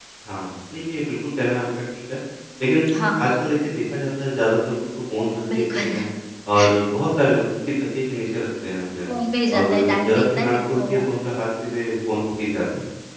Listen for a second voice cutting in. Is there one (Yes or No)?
Yes